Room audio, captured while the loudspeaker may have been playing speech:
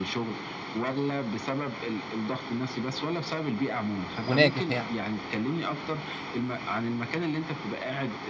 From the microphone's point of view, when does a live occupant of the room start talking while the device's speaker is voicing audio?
4.2 s

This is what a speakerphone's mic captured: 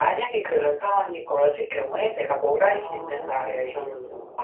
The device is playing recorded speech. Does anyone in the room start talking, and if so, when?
2.6 s

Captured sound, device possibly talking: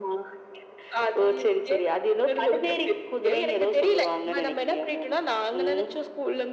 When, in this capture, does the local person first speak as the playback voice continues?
none

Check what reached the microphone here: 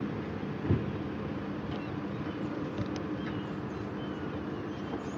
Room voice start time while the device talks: none

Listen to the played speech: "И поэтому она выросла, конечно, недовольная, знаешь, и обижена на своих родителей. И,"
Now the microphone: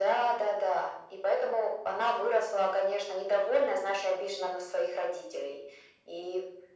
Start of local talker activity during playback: none

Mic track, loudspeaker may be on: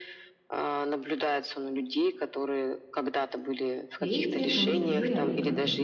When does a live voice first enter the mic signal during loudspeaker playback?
4.0 s

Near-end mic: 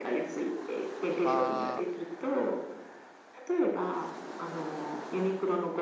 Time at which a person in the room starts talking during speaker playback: 1.0 s

